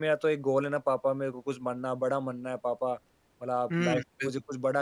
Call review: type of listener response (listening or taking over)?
listening